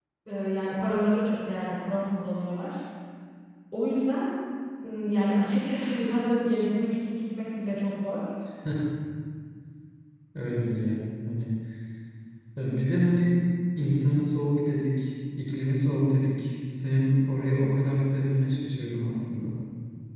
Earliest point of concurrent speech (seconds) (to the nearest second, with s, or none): none